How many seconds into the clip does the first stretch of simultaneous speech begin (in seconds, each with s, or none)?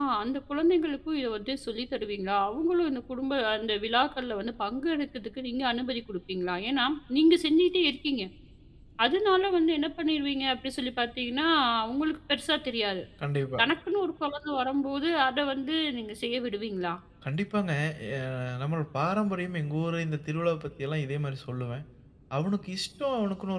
none